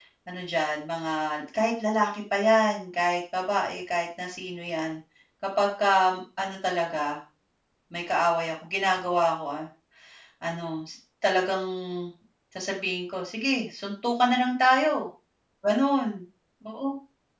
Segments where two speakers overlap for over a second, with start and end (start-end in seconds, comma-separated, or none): none